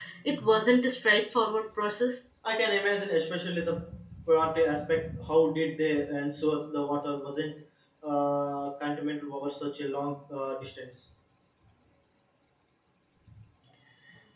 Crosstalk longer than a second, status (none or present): none